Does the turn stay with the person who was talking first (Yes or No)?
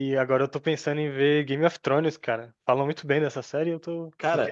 No